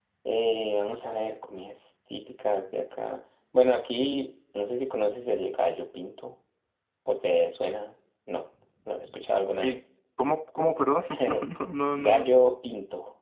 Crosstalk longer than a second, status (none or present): none